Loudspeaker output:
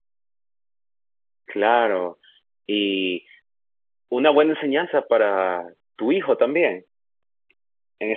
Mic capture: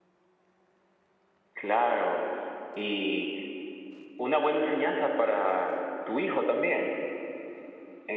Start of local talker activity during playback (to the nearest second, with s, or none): none